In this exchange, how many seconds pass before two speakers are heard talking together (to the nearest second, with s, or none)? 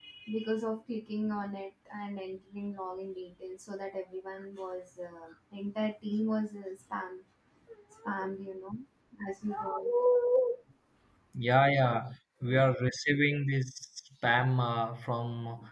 none